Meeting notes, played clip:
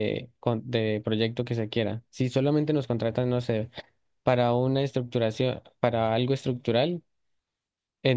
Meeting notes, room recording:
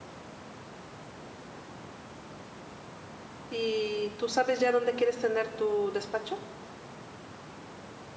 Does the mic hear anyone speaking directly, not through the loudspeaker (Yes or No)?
Yes